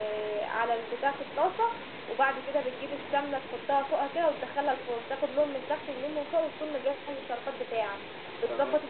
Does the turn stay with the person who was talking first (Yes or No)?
Yes